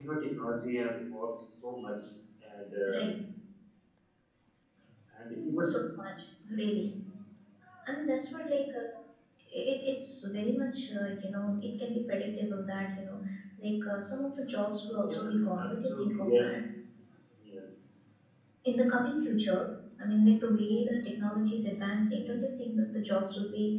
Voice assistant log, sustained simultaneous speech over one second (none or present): present